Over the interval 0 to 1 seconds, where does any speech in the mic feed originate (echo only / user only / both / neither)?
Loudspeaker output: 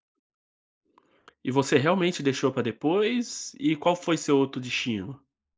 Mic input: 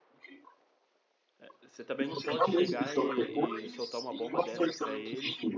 neither